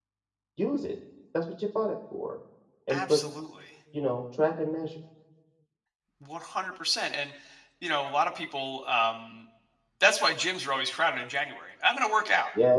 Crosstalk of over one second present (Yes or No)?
No